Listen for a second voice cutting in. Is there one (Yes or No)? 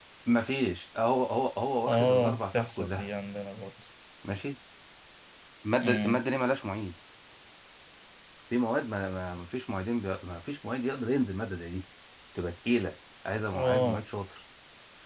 Yes